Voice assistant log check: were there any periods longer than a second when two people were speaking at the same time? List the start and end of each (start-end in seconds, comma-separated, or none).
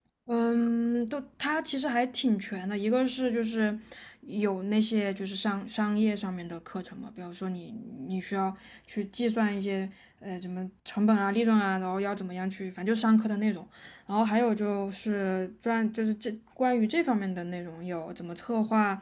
none